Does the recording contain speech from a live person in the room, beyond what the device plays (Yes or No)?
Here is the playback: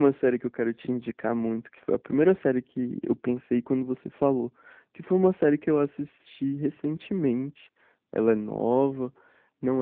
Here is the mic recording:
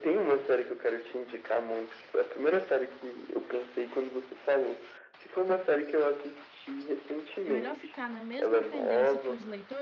Yes